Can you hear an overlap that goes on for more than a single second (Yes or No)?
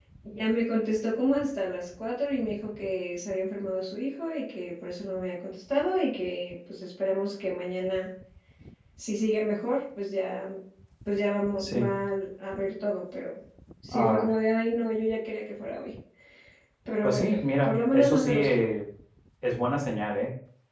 Yes